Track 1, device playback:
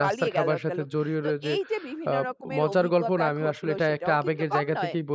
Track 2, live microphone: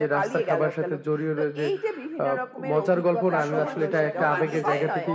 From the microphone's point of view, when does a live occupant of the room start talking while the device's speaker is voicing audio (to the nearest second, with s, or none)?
3 s